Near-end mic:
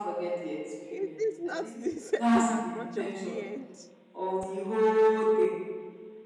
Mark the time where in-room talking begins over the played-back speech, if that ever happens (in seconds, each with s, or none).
0.9 s